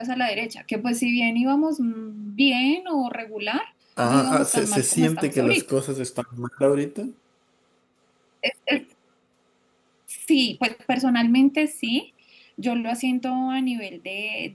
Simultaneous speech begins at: 4.0 s

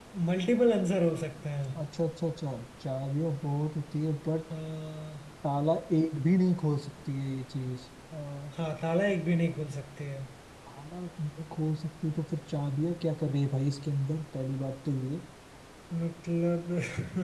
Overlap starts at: none

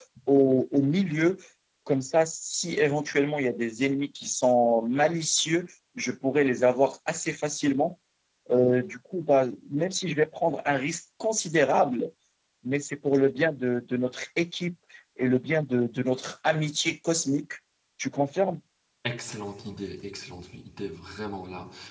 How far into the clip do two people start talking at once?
none

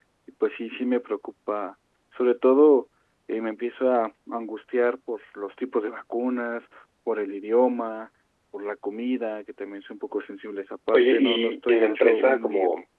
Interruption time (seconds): 10.9 s

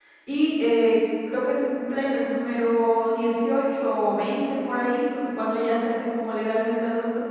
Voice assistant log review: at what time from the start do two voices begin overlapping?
none

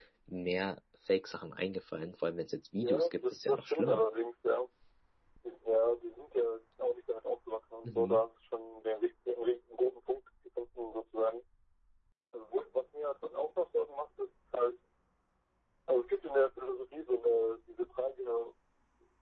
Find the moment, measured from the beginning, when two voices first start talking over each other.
2.8 s

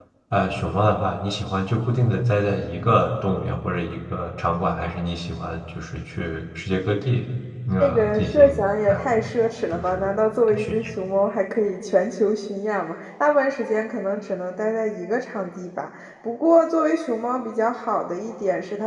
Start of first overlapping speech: 7.8 s

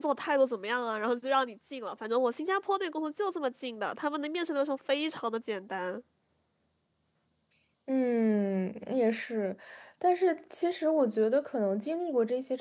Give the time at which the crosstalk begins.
none

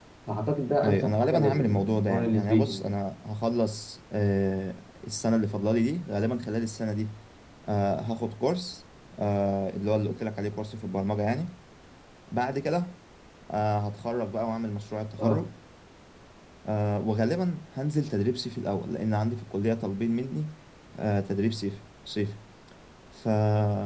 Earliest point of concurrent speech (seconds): 0.8 s

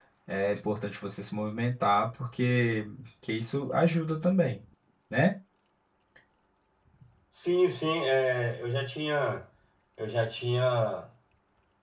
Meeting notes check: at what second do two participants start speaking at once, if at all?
none

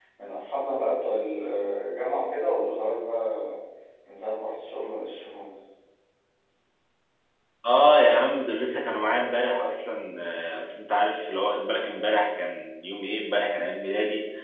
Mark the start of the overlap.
none

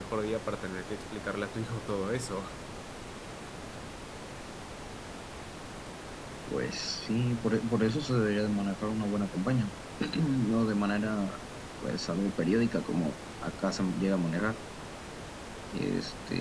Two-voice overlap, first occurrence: none

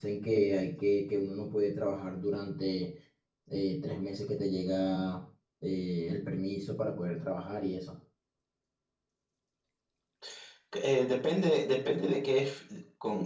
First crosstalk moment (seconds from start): none

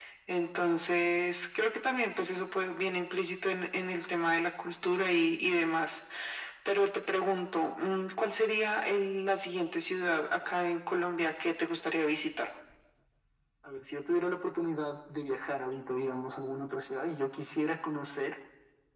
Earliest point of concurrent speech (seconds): none

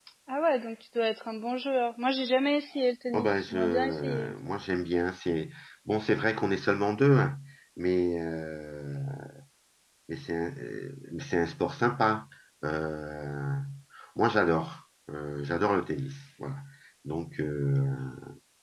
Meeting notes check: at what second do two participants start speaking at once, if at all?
3.1 s

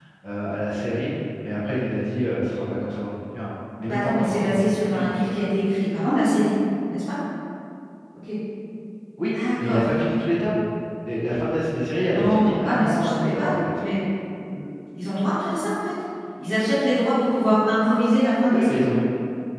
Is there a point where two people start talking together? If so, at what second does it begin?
3.9 s

